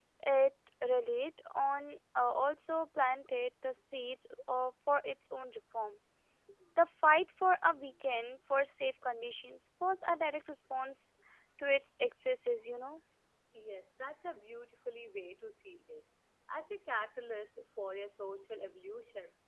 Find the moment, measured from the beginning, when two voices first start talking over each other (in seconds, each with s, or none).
none